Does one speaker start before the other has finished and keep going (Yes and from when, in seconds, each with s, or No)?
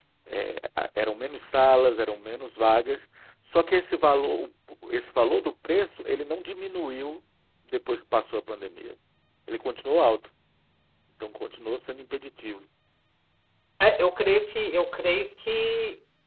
No